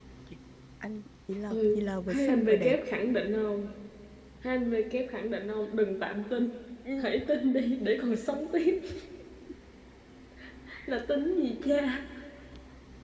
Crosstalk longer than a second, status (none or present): present